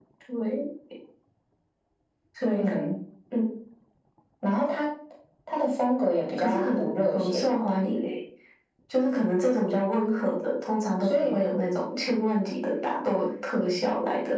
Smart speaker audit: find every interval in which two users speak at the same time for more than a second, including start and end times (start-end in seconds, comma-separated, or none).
6.4-7.8